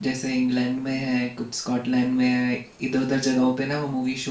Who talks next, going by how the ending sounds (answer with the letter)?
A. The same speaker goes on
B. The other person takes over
A